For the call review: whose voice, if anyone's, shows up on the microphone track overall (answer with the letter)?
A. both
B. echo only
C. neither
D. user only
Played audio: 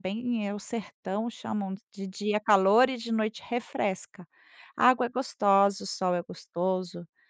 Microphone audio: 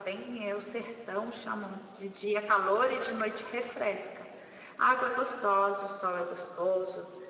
B